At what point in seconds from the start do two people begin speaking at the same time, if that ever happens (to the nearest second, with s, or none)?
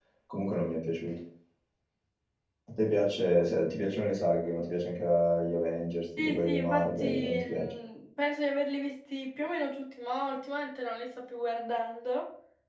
6 s